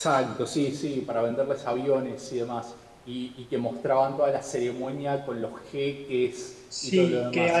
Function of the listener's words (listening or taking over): taking over